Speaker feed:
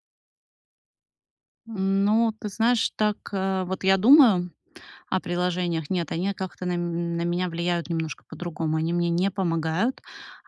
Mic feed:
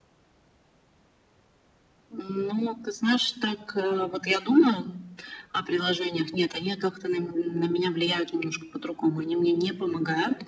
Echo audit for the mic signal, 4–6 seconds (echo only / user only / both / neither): echo only